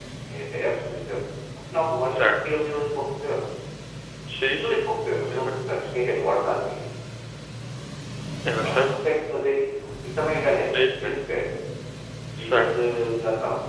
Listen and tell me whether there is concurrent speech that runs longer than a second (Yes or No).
No